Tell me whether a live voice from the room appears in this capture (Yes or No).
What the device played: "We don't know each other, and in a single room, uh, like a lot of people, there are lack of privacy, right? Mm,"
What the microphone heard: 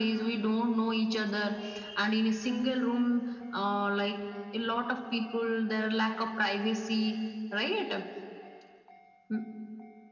No